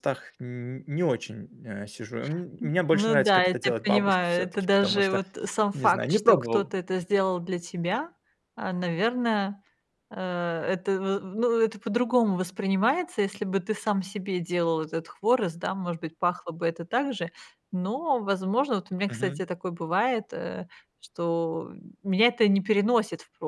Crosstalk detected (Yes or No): Yes